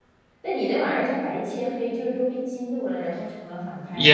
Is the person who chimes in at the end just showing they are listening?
No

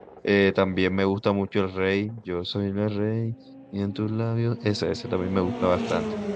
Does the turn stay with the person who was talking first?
Yes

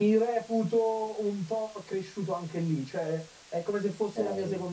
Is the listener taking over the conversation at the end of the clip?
No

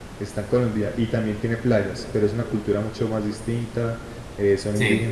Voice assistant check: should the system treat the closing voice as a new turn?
No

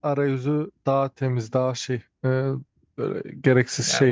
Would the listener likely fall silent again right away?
No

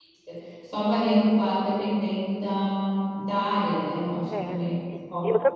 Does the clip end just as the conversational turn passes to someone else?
Yes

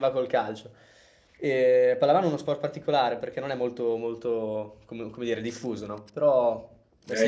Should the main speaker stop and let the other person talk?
Yes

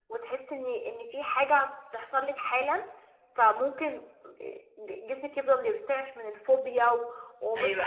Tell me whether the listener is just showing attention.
No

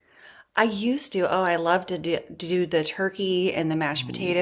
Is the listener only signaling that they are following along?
Yes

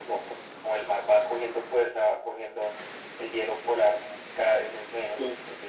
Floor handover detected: No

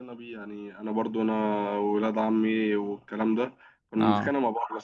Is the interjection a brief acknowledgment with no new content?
Yes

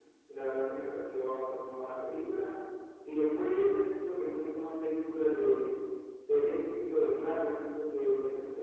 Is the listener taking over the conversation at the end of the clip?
No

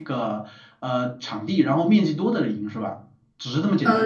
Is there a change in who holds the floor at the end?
Yes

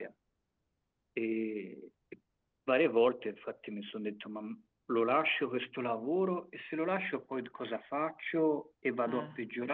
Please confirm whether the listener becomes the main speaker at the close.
No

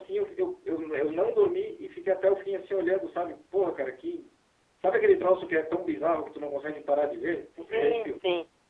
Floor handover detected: Yes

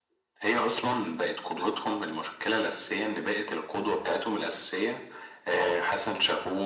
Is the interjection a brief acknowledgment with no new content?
Yes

